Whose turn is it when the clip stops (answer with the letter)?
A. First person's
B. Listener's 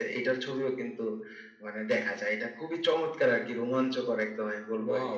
B